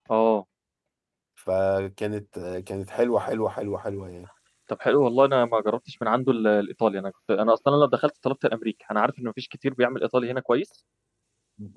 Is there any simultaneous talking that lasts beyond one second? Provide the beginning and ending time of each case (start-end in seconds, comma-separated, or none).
none